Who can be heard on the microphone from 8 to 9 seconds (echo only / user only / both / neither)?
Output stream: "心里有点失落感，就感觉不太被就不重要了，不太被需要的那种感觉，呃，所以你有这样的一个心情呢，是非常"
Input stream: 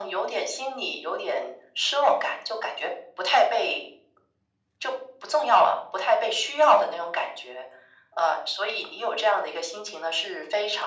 echo only